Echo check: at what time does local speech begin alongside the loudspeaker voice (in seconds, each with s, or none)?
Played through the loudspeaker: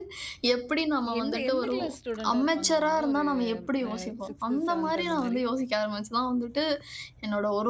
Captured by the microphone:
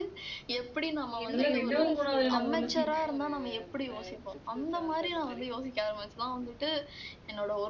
1.3 s